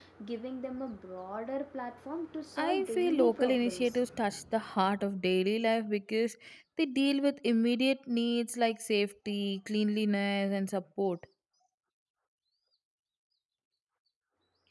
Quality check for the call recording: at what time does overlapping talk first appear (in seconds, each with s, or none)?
2.6 s